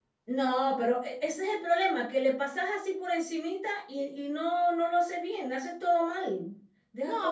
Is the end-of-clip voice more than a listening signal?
Yes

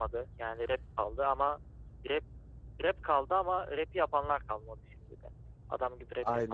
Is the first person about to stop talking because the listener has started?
Yes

